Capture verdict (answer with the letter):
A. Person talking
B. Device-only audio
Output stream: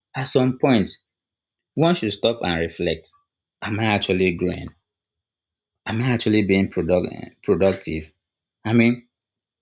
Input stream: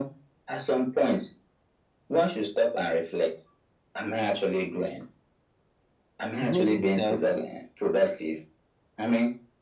A